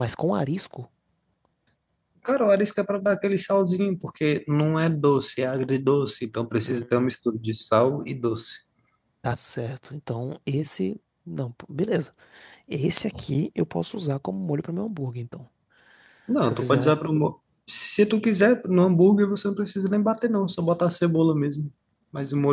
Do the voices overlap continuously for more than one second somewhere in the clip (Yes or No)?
No